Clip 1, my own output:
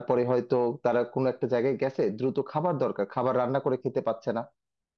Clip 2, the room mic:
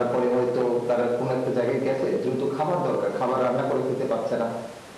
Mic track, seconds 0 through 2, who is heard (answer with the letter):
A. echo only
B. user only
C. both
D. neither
A